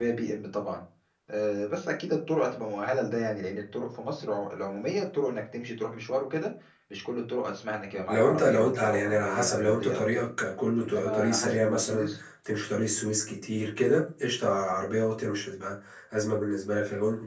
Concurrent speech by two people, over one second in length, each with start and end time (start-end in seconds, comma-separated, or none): 8.1-10.2, 10.9-12.1